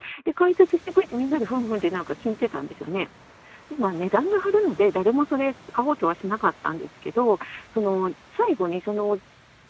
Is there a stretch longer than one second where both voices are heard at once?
No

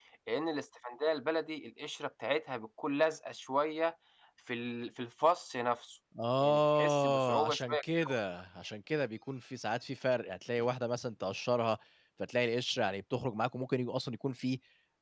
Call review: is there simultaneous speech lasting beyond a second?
Yes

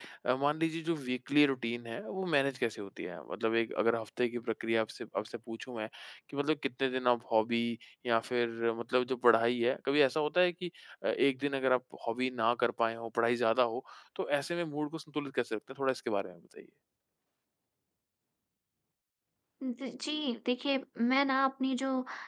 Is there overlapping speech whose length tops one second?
No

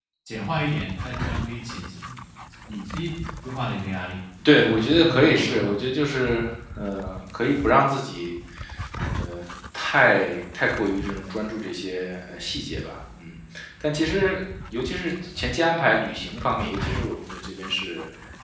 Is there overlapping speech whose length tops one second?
Yes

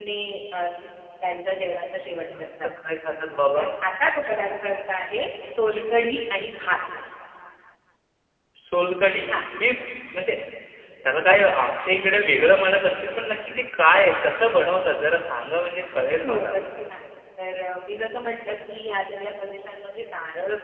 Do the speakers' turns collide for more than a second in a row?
No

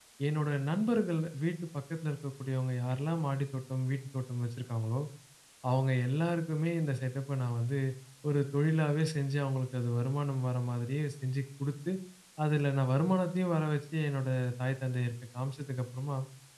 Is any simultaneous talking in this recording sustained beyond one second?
No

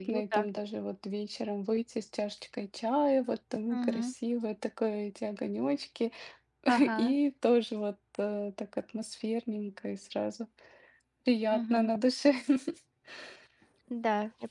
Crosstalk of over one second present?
No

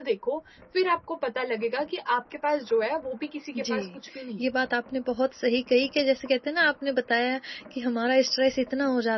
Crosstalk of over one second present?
No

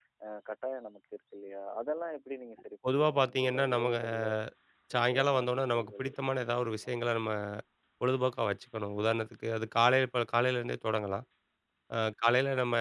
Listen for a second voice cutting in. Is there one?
Yes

